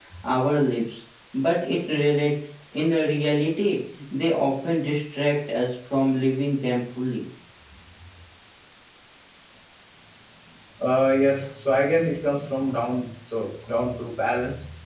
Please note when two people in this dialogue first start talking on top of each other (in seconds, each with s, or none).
none